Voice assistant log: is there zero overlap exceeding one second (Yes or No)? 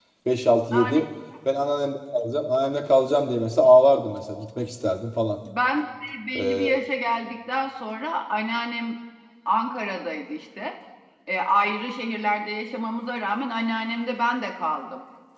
Yes